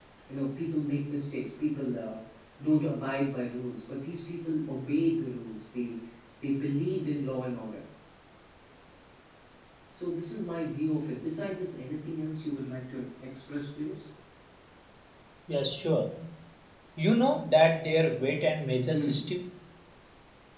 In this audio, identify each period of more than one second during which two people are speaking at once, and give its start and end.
none

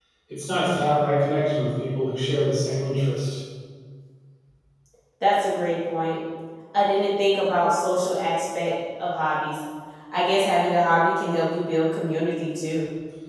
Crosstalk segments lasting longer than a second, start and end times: none

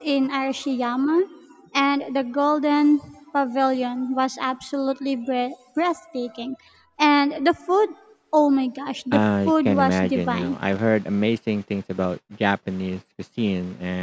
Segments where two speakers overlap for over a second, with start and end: 9.1-10.6

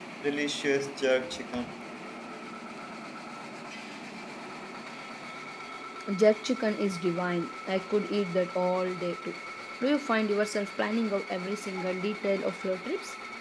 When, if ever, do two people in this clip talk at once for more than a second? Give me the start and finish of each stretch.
none

